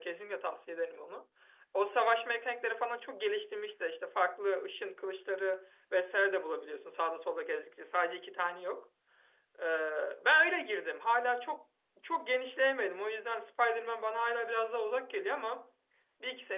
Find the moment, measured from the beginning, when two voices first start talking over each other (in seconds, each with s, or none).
none